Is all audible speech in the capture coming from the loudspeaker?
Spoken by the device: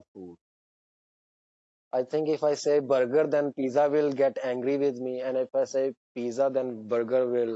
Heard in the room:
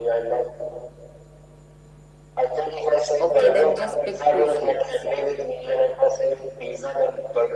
No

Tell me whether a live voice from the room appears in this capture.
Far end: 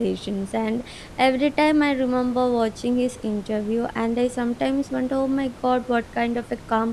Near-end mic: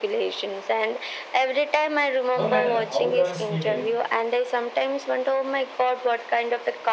Yes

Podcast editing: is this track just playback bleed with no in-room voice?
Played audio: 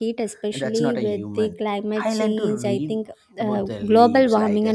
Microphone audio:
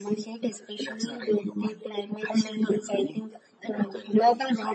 Yes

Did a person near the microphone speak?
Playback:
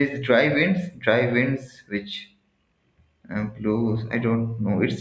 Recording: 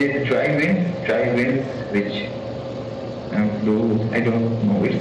No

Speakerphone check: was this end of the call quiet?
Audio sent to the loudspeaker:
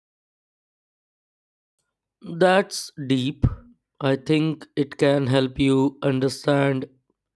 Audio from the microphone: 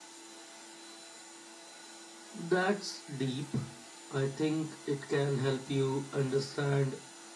Yes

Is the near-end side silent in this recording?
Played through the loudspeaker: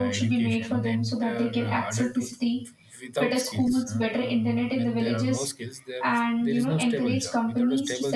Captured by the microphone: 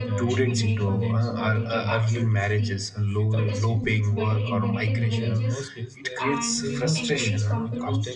No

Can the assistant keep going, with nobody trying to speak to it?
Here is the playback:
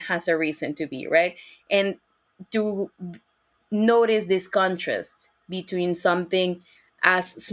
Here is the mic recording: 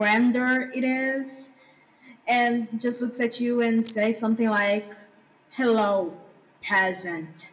No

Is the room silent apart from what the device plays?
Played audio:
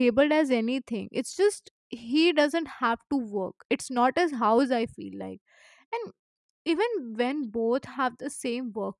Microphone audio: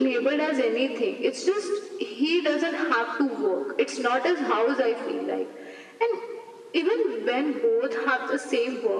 Yes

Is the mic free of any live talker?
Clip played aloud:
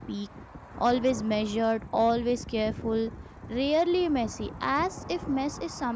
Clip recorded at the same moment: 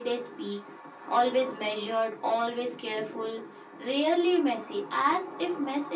Yes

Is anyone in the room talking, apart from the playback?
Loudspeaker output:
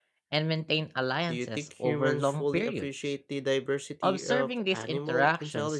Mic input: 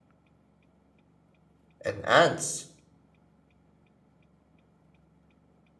Yes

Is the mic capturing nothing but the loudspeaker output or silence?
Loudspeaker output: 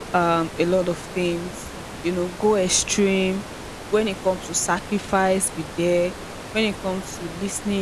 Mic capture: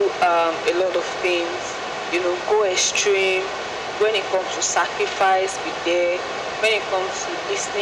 Yes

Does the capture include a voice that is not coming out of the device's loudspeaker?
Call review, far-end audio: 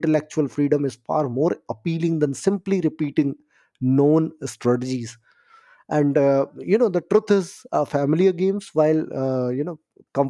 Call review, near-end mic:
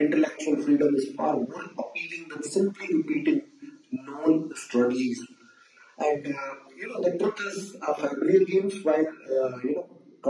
No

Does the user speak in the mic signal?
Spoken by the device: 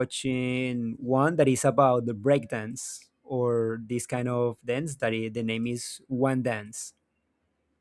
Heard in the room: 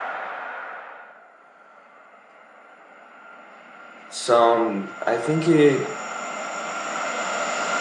Yes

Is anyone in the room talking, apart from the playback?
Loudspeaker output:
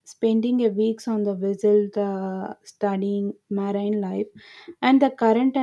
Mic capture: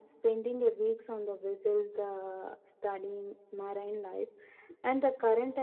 No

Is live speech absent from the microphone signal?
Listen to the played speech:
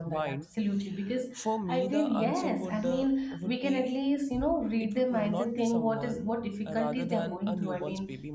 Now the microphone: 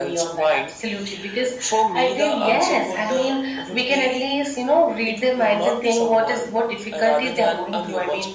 Yes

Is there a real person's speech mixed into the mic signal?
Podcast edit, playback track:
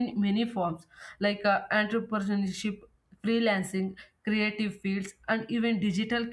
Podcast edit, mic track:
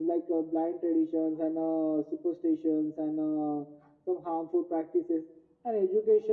Yes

